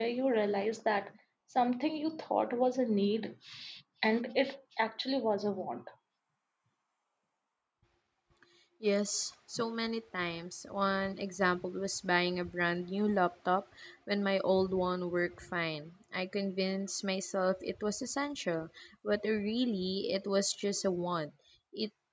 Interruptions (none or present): none